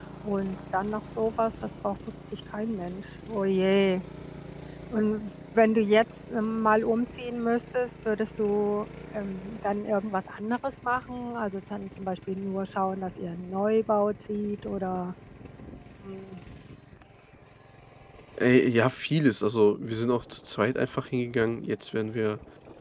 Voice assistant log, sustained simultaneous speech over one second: none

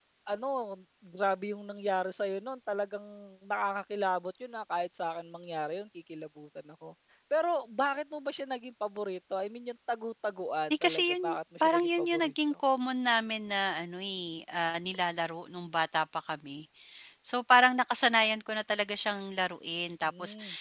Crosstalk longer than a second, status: present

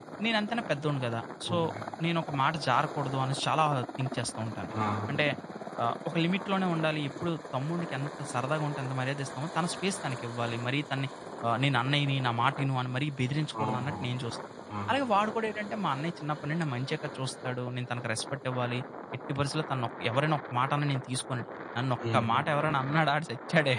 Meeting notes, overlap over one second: none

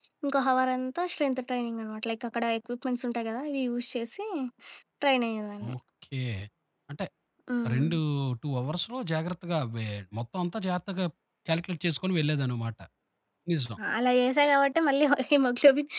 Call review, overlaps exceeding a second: none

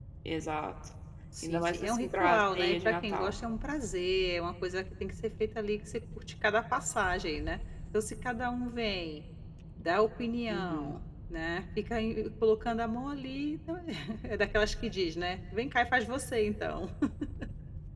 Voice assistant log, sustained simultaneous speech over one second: present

